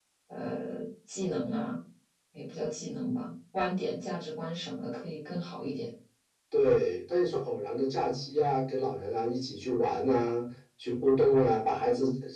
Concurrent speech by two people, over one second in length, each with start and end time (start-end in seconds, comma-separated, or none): none